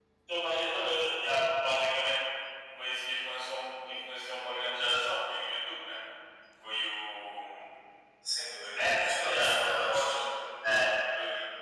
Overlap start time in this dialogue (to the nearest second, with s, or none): 9 s